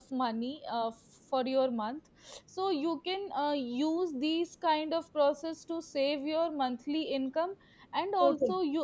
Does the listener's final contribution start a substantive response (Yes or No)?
No